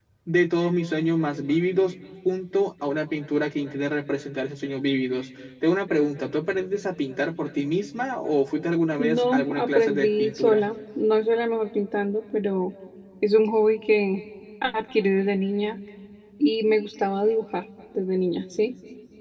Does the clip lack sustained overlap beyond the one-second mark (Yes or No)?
No